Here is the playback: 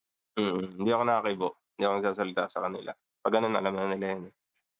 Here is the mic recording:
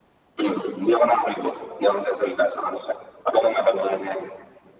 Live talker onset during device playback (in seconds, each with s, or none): none